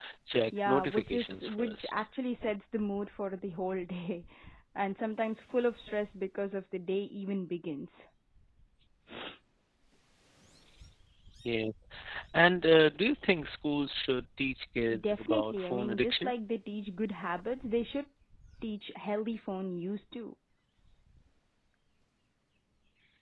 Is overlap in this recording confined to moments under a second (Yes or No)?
No